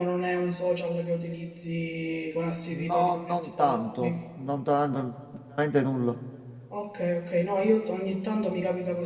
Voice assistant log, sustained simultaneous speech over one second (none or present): present